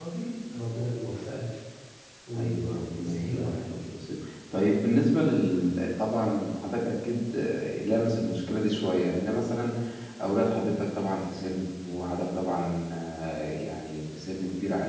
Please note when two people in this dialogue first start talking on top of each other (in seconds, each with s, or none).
2.4 s